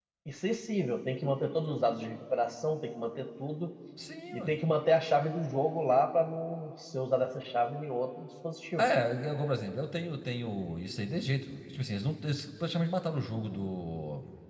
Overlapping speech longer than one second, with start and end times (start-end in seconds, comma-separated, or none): none